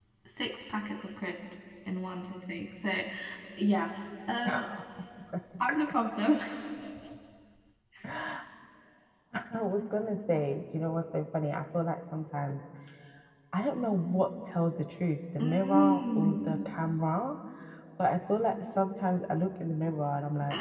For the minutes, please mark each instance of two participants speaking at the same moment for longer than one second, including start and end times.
15.4-16.6

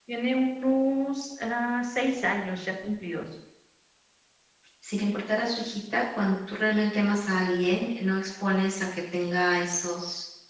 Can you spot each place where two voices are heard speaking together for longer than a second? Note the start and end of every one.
none

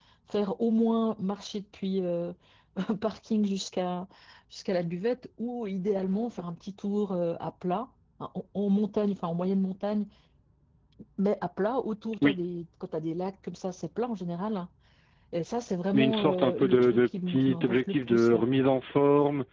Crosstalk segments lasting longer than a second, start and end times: 15.9-18.4

